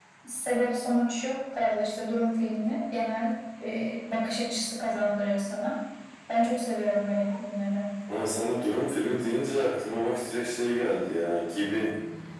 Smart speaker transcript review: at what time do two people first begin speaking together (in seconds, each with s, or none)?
none